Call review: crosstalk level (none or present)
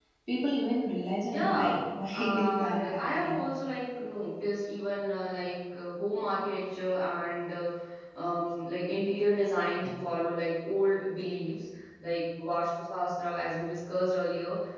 present